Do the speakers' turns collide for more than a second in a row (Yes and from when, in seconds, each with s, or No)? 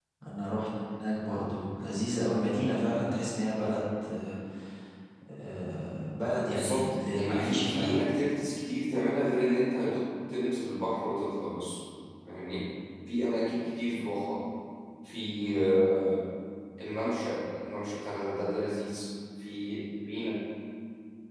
Yes, from 6.5 s